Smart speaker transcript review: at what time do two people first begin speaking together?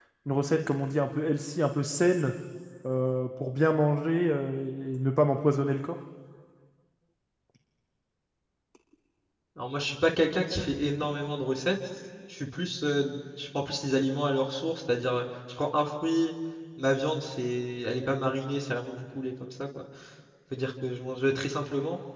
none

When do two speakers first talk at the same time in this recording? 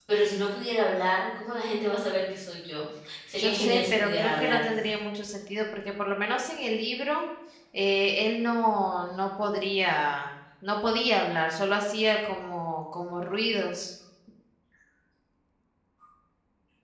3 s

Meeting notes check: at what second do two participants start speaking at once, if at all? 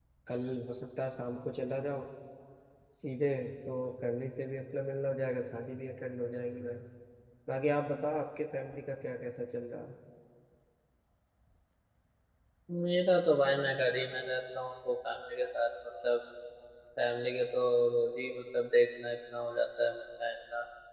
none

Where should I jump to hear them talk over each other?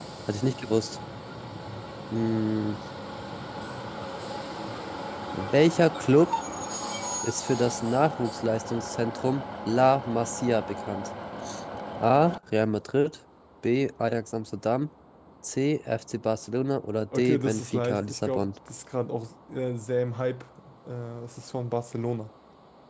17 s

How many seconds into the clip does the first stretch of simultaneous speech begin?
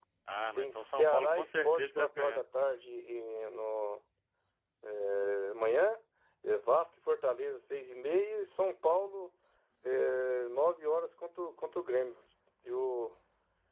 1 s

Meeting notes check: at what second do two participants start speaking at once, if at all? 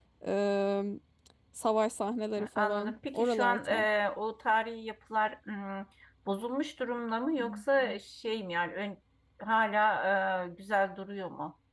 2 s

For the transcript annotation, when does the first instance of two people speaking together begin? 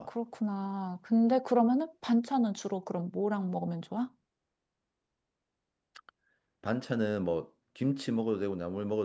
none

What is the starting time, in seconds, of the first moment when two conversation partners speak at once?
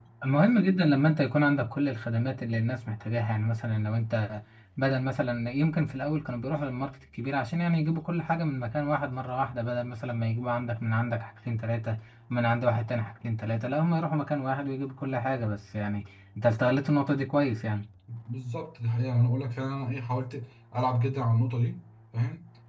none

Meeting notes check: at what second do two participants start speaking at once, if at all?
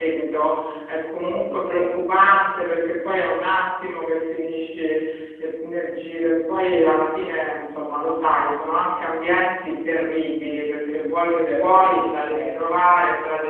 1 s

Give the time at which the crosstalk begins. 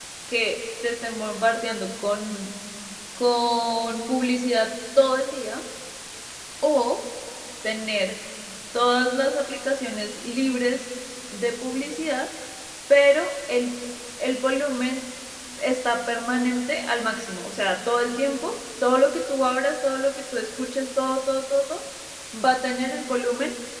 none

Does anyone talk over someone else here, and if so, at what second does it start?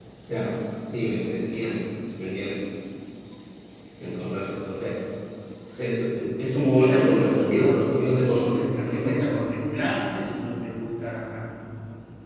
7 s

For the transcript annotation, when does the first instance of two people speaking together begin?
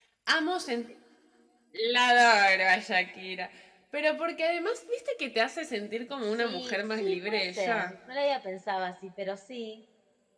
6 s

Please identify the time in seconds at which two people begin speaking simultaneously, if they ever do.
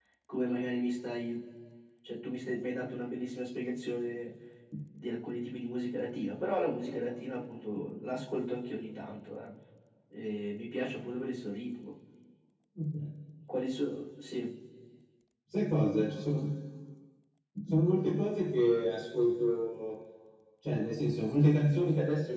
none

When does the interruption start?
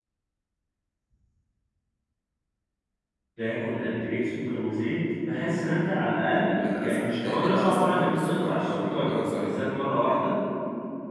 6 s

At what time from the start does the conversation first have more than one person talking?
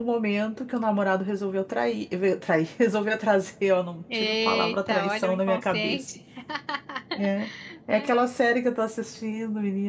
4 s

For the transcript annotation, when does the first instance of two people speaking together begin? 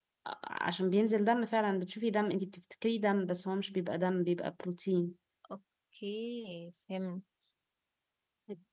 none

